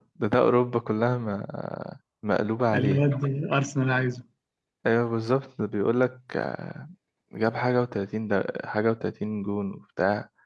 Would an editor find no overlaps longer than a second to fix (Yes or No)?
Yes